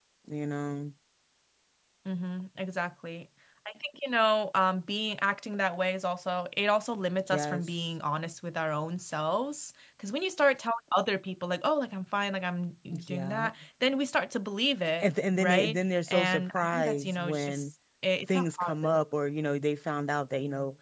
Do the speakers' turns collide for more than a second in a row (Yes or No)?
Yes